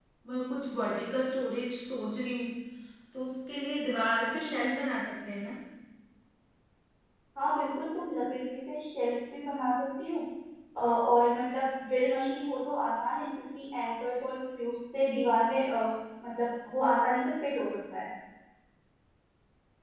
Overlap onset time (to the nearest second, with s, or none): none